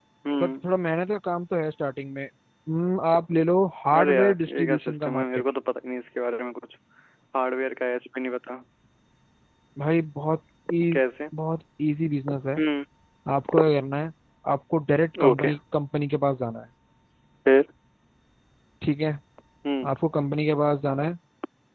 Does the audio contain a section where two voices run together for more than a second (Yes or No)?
Yes